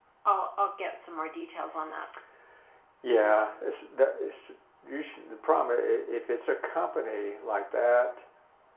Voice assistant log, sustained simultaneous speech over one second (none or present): none